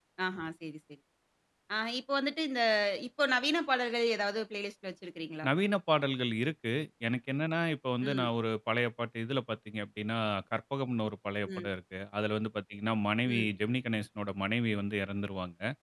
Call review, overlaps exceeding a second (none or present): none